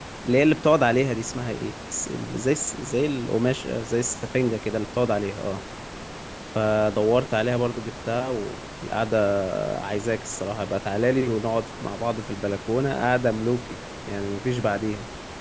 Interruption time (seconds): none

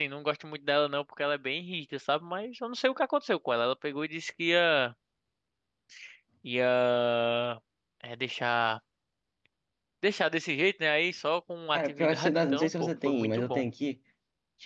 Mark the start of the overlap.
11.7 s

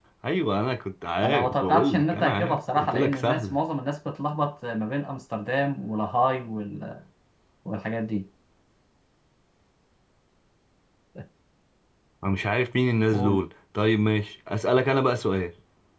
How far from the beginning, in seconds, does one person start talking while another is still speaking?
1.2 s

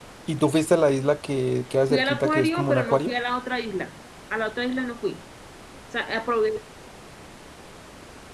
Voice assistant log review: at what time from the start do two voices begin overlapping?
1.9 s

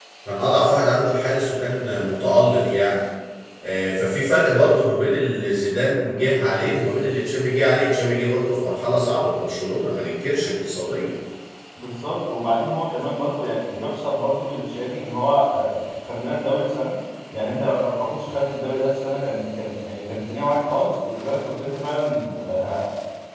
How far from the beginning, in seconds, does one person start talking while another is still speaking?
none

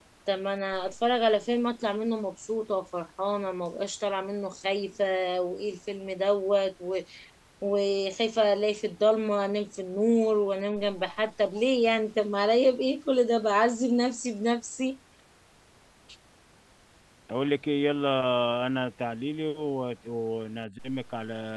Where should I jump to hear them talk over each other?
none

